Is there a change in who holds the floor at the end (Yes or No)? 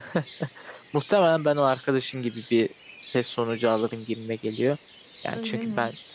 No